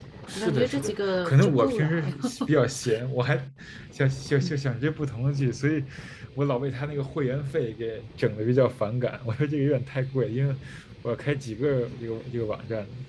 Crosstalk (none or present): present